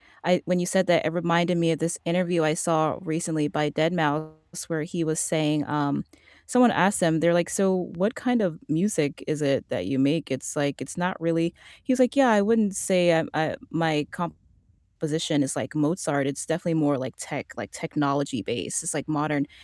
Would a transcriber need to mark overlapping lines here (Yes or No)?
No